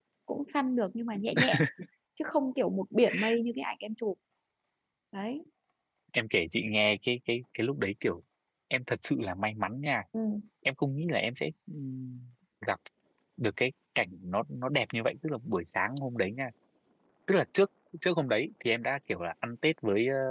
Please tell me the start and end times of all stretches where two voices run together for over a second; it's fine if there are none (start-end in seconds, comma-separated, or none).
none